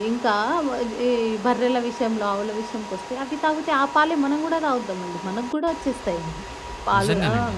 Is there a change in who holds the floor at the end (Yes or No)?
No